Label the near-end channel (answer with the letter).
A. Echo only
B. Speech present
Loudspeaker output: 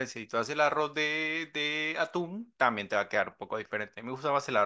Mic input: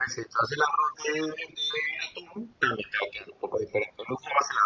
A